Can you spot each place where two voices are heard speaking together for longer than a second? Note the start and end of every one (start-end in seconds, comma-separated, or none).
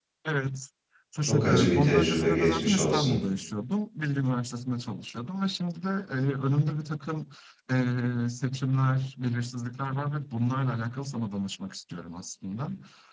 1.3-3.2